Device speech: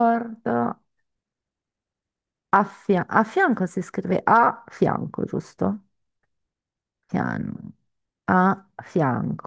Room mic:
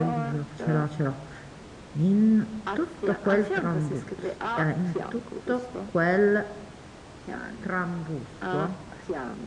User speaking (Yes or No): Yes